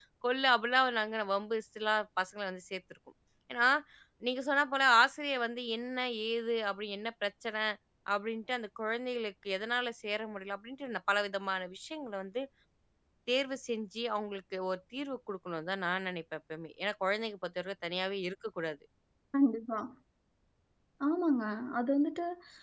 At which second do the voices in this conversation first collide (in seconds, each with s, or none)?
none